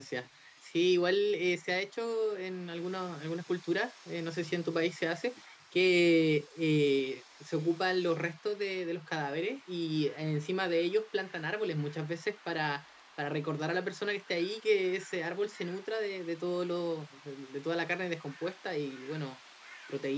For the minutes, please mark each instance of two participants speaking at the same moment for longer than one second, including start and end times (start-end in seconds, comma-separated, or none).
none